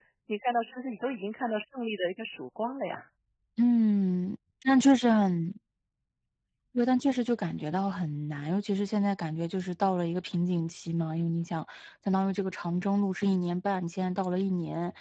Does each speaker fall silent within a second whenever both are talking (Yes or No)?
Yes